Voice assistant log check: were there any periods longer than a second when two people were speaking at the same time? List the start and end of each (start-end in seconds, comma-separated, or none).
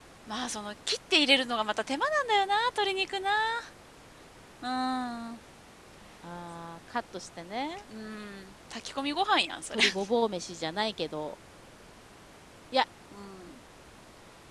none